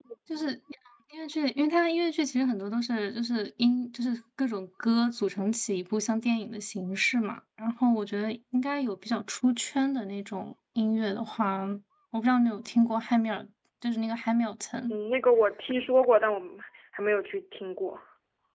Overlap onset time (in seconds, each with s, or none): none